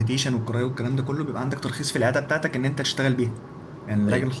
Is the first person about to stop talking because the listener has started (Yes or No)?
No